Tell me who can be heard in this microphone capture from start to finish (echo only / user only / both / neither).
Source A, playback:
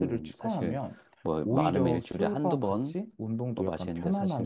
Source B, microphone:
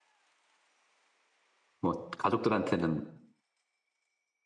user only